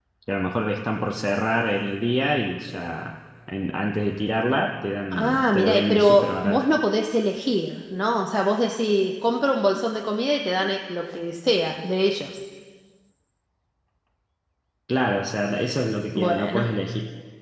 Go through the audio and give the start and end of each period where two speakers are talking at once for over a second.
5.1-6.6

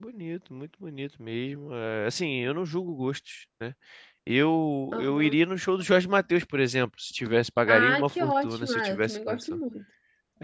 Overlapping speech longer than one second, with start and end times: 7.7-9.6

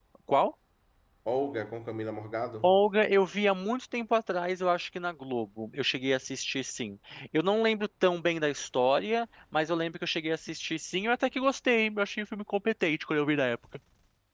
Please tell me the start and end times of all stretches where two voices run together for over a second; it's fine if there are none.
none

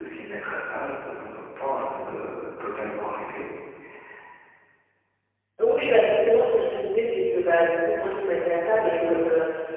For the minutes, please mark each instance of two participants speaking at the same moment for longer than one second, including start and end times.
none

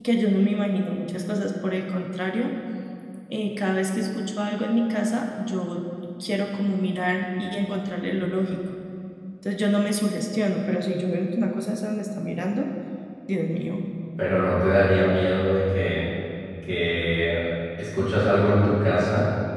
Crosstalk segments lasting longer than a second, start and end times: none

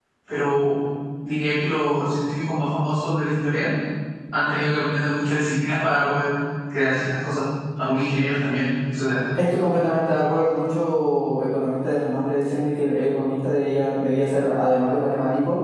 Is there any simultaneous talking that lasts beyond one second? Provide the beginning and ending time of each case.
none

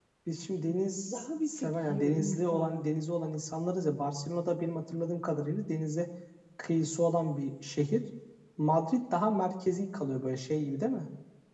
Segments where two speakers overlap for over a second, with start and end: 1.1-2.8

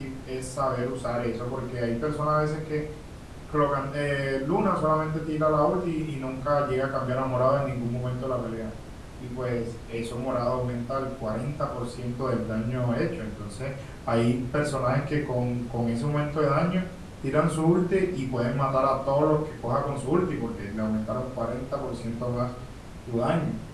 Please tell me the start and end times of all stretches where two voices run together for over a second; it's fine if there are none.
none

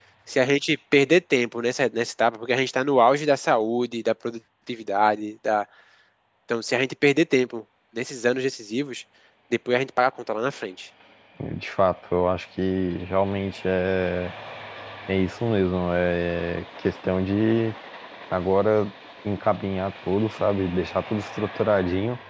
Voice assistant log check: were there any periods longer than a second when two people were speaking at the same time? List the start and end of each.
none

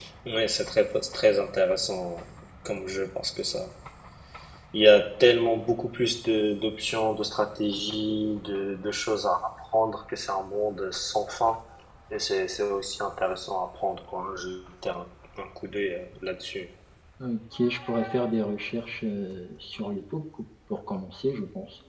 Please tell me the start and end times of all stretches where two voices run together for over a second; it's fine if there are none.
none

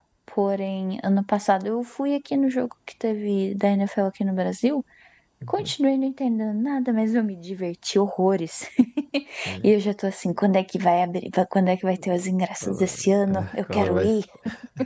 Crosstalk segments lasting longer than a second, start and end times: 12.6-14.1

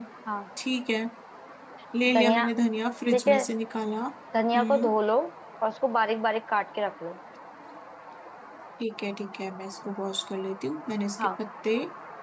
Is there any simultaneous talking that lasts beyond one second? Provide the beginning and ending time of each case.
none

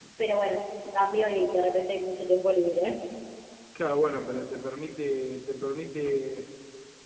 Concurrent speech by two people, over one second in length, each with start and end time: none

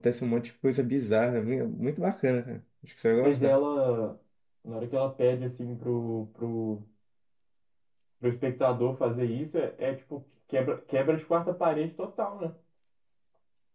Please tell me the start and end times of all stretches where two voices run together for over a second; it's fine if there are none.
none

